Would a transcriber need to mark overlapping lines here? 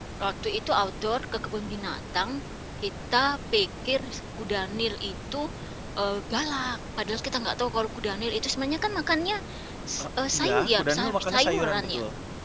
Yes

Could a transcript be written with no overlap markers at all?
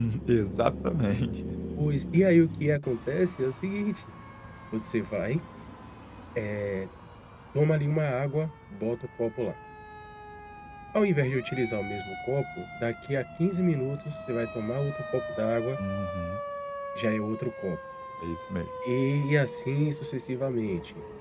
Yes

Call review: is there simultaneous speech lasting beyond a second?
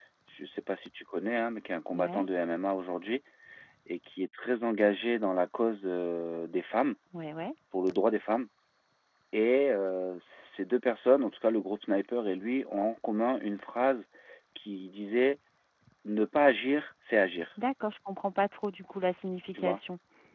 No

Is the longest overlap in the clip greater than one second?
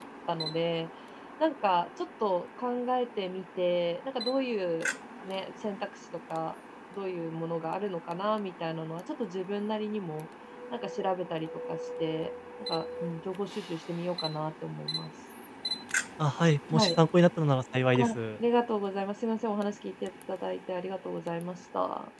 No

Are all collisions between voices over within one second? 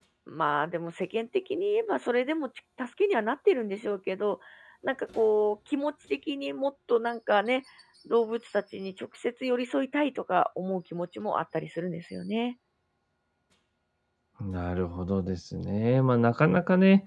Yes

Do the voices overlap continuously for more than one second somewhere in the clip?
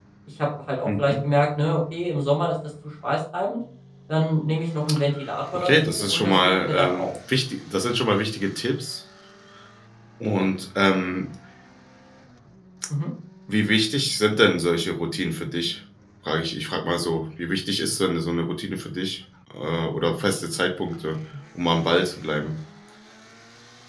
Yes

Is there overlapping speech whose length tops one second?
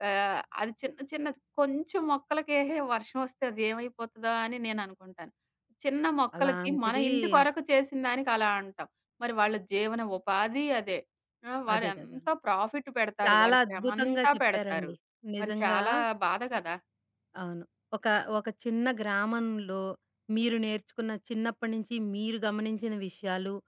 Yes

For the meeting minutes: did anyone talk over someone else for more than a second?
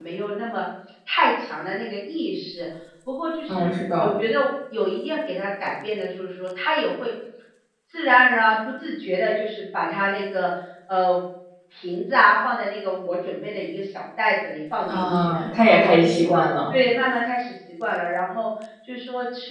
Yes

